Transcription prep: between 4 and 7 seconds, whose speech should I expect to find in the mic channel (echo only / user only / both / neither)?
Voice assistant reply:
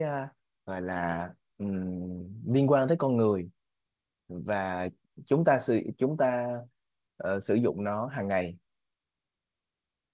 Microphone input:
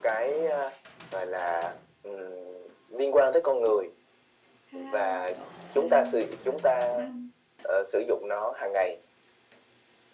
both